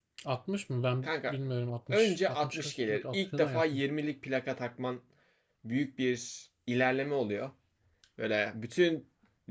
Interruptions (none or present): present